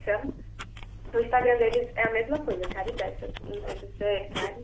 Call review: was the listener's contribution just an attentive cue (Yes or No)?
Yes